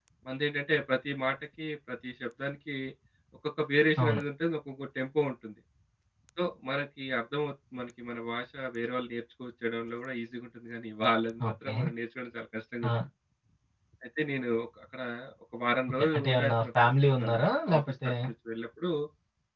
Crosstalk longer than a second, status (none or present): present